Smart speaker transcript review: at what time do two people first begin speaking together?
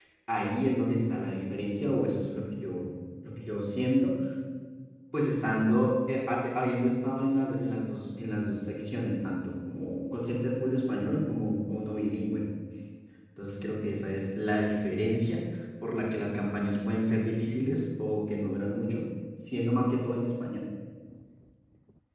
none

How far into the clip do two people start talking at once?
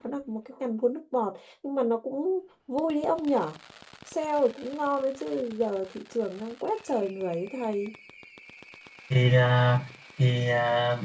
none

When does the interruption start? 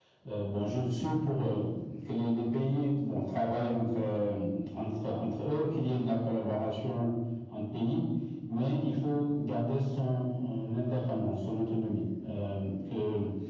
none

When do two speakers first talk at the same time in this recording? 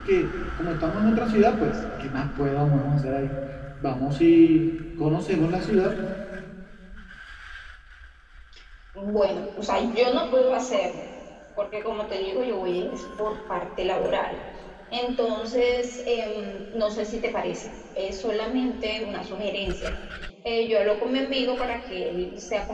none

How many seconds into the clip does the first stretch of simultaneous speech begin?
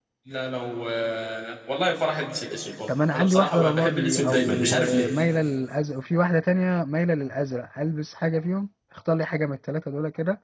2.9 s

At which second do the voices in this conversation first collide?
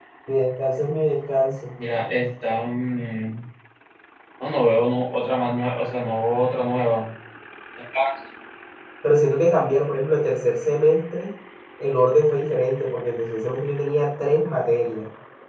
none

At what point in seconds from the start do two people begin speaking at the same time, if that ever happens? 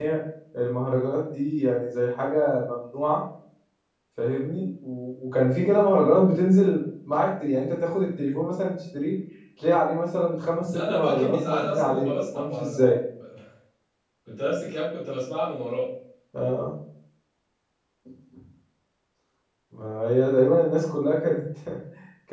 10.6 s

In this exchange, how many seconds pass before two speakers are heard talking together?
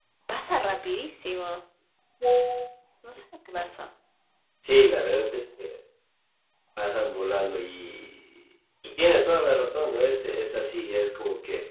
none

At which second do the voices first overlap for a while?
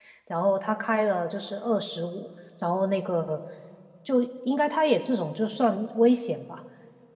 none

